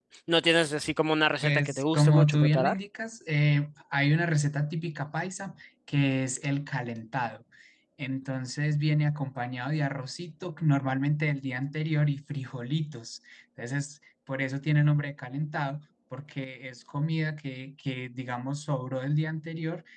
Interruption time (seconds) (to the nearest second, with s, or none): 1 s